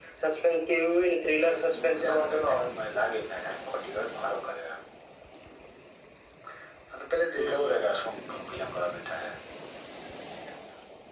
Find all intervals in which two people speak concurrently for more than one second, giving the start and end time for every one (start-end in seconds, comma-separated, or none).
1.5-2.7